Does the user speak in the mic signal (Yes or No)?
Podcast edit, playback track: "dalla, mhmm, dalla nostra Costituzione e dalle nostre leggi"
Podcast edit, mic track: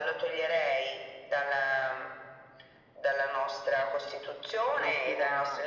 Yes